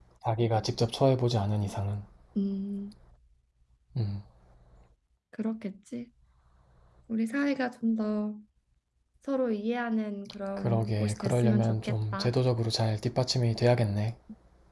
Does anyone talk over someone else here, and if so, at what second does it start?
10.6 s

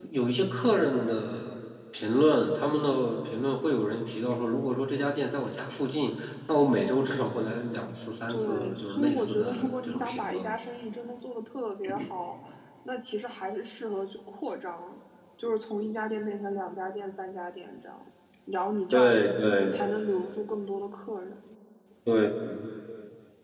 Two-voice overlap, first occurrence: 8.3 s

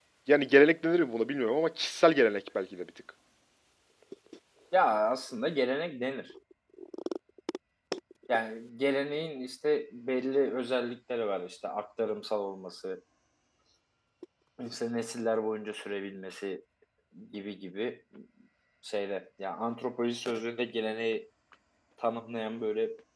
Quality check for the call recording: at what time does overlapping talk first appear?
none

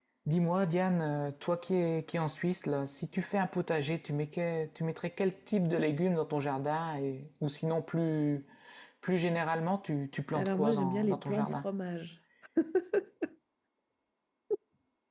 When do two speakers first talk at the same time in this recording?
10.3 s

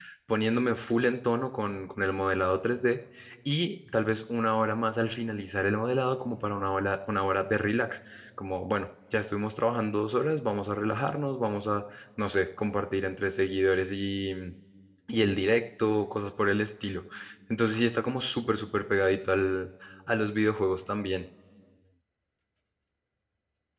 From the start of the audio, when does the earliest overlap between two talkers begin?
none

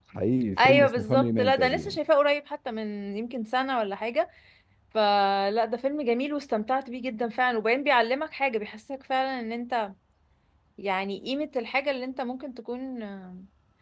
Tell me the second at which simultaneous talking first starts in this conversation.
0.6 s

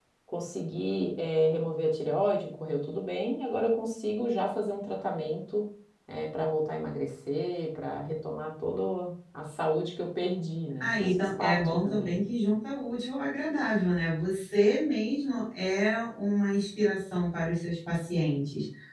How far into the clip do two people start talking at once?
10.8 s

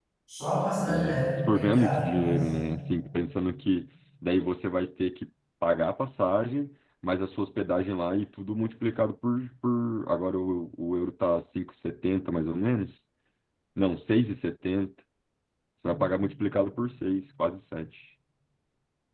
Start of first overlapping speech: 0.9 s

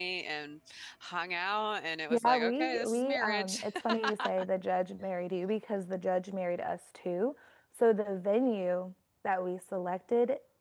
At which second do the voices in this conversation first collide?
2.1 s

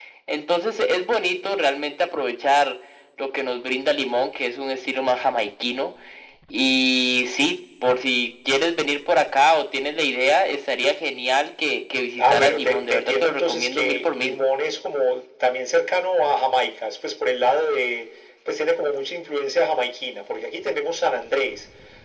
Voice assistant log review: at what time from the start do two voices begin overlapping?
12.2 s

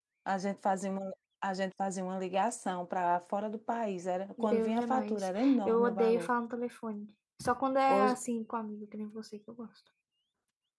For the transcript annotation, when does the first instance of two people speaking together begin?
4.4 s

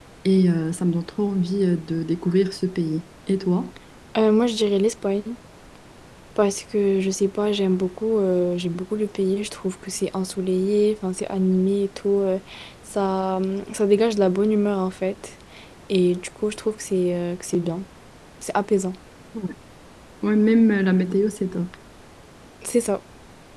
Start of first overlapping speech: none

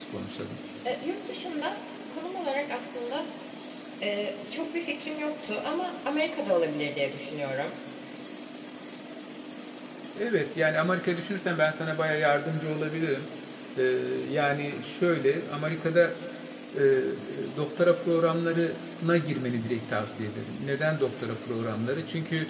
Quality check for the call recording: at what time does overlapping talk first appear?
none

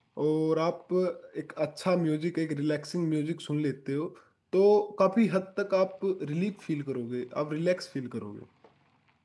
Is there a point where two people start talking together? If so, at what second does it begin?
none

